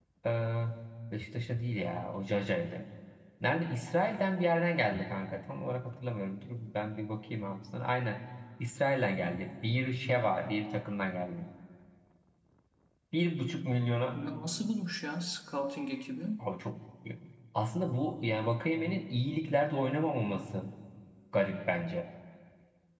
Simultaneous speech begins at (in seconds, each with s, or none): none